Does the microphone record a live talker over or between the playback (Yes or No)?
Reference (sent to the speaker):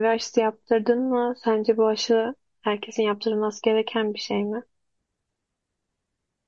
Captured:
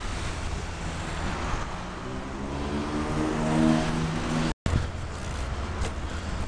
No